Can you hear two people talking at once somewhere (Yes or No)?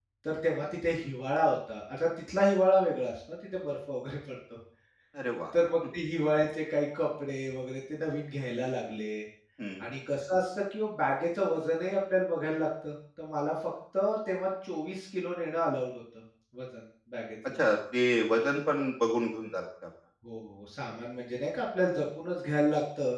No